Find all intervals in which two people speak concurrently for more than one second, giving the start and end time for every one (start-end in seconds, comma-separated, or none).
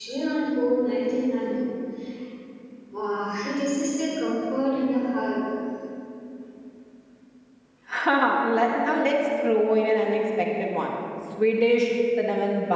none